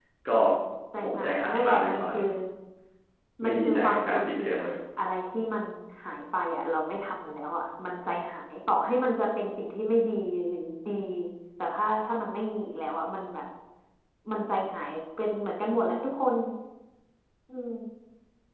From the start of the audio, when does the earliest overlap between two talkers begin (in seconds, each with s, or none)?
1.0 s